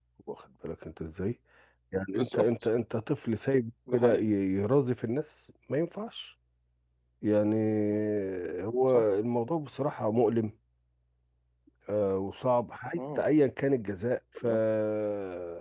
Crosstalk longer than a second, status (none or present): none